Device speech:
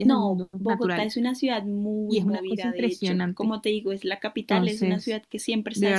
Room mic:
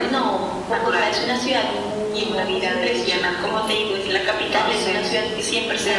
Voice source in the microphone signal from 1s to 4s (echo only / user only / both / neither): echo only